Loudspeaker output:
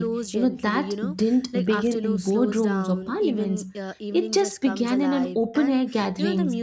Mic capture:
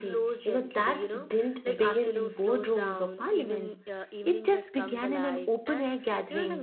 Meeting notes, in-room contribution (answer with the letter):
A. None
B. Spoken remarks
A